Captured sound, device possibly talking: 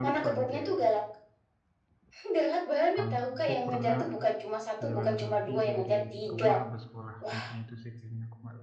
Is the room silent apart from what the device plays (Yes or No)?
No